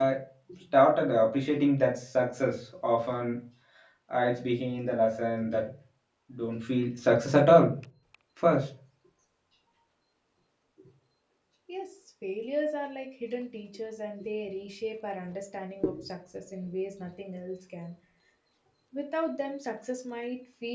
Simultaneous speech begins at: none

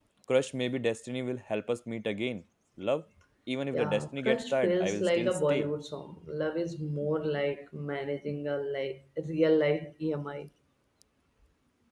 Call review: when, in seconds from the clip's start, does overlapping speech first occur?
4 s

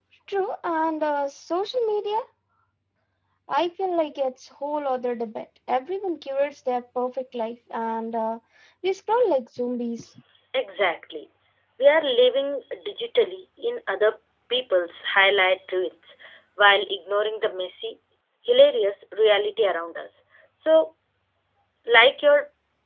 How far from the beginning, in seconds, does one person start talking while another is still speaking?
none

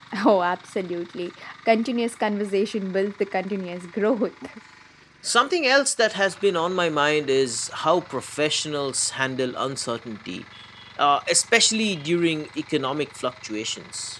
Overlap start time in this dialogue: none

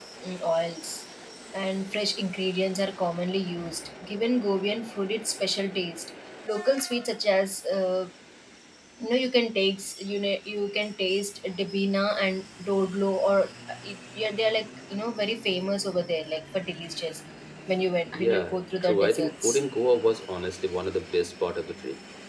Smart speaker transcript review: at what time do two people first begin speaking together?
18 s

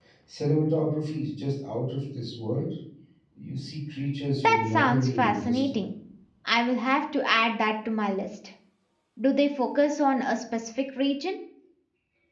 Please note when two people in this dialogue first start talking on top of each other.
4 s

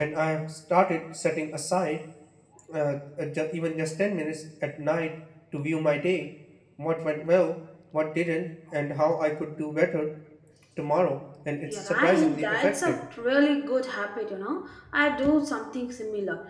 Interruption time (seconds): 12 s

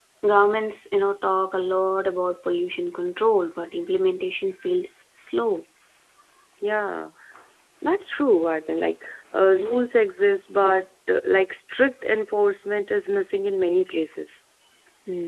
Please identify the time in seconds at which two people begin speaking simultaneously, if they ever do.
none

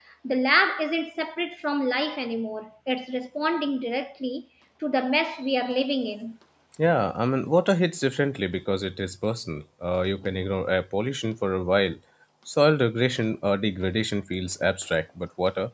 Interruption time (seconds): none

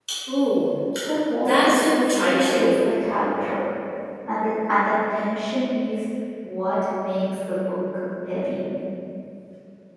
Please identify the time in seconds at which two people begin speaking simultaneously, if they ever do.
1 s

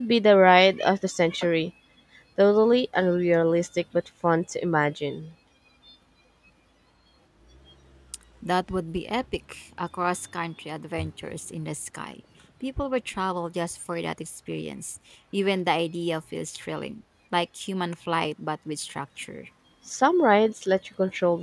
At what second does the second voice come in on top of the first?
none

